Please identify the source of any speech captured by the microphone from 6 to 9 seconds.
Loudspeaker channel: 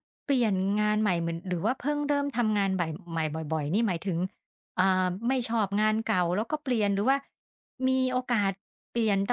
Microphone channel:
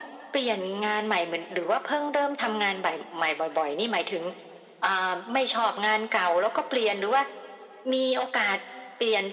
echo only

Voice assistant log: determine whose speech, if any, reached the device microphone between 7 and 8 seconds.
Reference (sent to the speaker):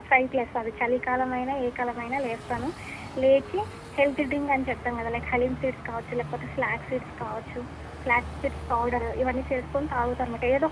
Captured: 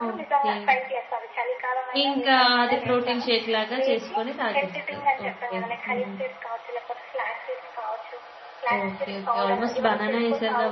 echo only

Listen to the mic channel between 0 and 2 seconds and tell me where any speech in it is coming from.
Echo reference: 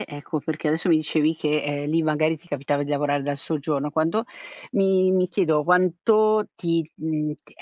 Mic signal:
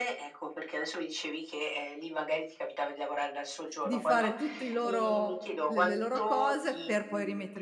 echo only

